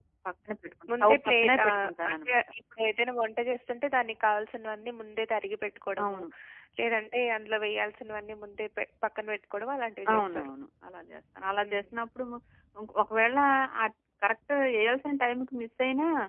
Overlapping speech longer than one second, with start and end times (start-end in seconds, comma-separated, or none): 1.0-2.4